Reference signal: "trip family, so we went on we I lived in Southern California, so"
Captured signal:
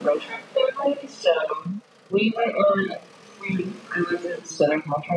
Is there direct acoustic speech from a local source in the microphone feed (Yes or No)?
No